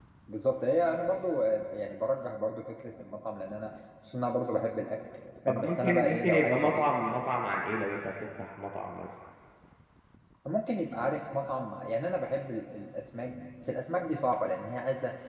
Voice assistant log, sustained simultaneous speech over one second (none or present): present